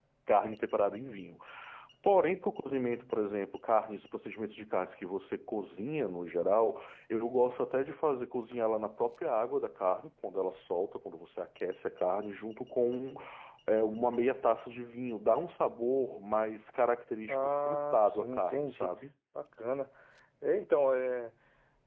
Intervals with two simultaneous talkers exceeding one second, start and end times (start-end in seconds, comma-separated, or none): 17.3-18.9